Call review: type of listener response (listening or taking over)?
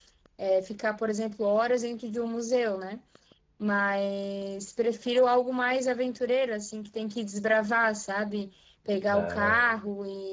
listening